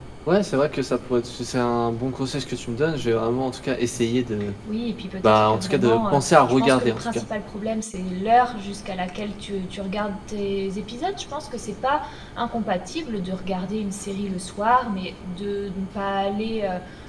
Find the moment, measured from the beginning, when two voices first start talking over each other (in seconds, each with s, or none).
5.2 s